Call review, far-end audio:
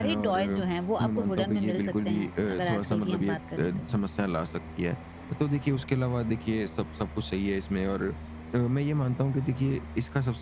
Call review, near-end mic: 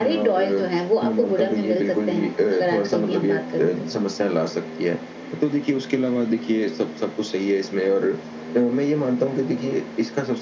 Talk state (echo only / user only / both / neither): echo only